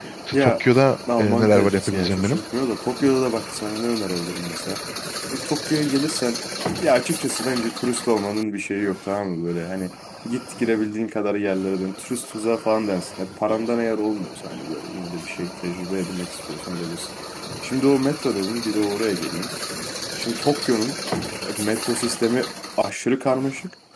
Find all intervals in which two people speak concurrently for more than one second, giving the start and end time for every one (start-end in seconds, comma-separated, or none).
1.2-2.4